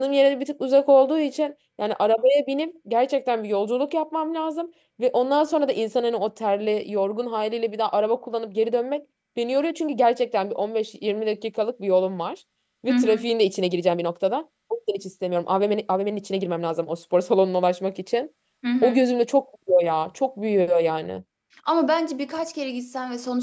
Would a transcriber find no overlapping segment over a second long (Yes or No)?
Yes